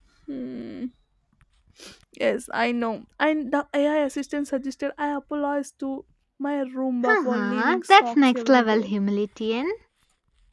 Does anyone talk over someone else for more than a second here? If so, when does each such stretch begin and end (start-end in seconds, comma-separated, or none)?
7.0-8.9